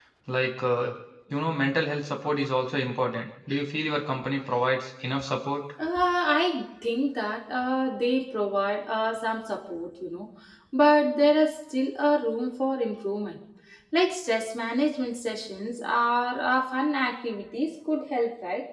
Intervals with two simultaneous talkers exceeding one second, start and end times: none

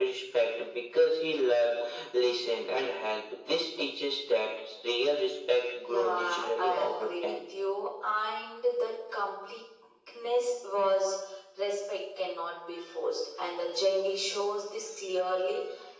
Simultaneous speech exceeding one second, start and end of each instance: 5.8-7.3

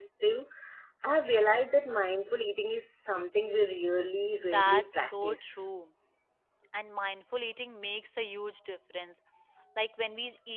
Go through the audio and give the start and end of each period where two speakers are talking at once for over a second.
4.4-5.7

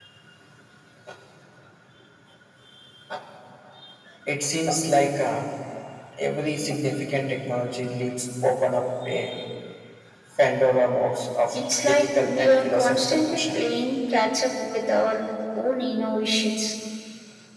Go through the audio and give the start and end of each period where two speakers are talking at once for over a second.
11.5-13.6

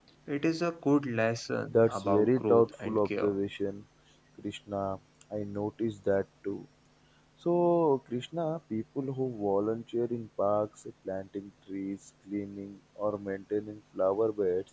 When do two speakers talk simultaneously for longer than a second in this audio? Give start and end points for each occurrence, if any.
1.7-3.3

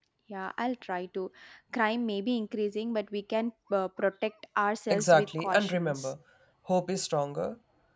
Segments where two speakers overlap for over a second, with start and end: 4.9-6.1

